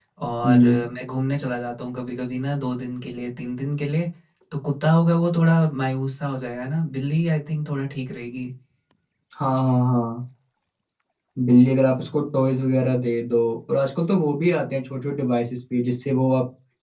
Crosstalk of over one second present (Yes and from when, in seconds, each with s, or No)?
No